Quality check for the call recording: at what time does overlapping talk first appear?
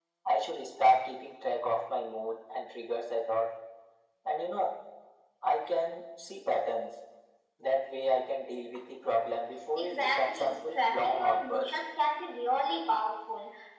10 s

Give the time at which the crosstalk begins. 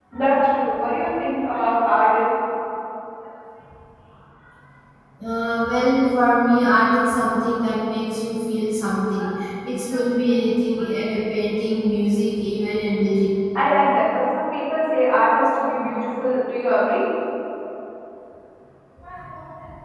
none

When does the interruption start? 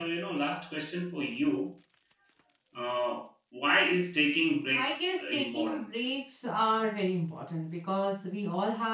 5 s

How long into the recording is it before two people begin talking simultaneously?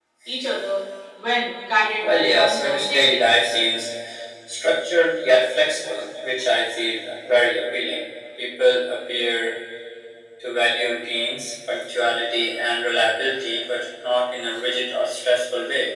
2 s

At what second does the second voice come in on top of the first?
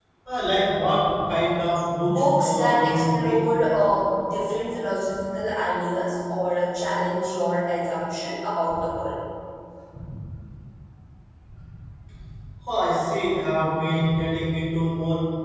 2 s

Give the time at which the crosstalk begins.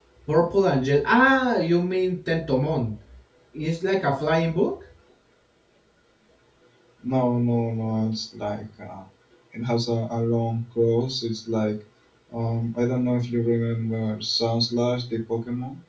none

